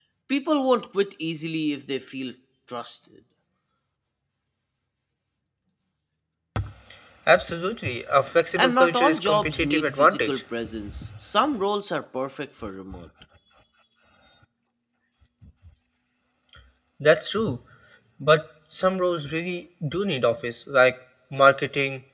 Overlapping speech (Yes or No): Yes